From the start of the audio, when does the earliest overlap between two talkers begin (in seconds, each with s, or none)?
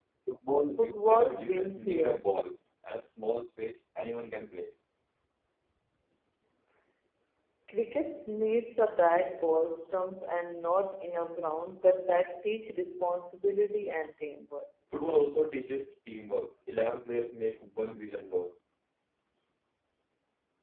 0.8 s